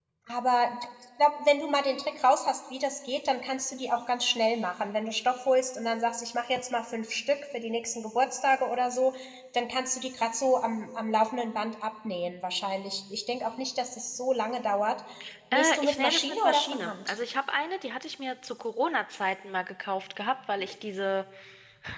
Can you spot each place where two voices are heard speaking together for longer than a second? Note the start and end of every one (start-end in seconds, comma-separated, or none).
15.5-17.1